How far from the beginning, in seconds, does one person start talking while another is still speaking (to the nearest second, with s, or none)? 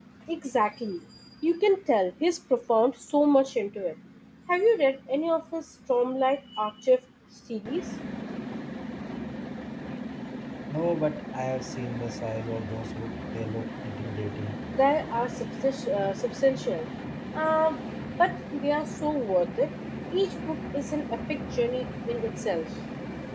none